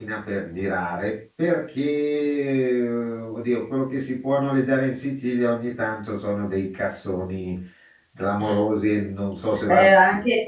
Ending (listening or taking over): taking over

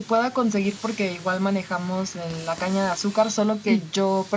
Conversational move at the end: listening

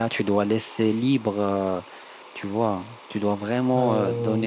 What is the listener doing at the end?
listening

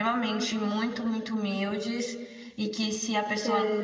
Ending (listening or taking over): listening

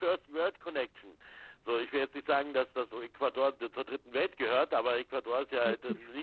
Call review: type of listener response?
listening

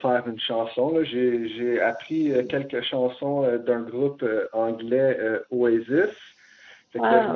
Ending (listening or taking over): listening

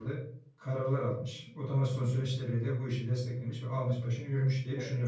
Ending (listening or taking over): taking over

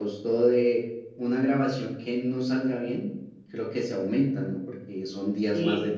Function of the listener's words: listening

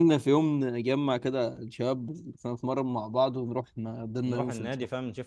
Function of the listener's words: taking over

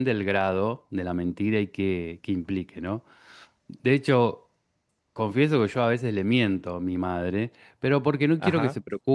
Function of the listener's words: listening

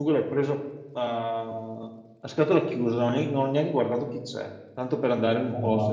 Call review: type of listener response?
listening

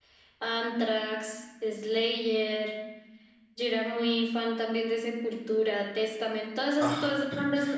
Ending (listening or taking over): listening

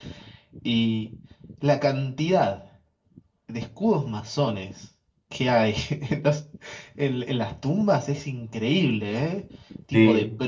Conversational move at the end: listening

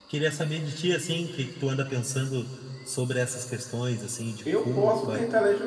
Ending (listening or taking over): taking over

